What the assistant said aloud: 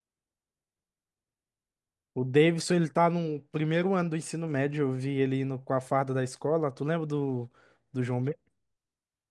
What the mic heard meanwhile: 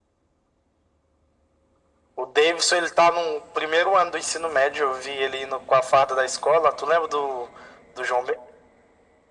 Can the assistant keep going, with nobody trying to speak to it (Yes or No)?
Yes